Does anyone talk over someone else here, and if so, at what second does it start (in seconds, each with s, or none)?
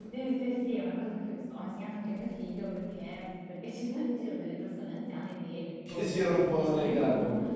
5.8 s